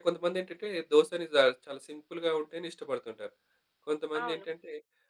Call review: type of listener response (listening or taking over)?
listening